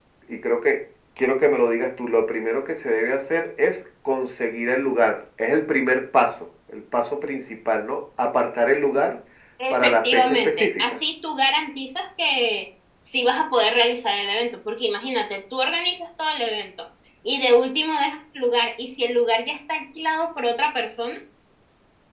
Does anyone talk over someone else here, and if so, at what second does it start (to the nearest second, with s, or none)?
10 s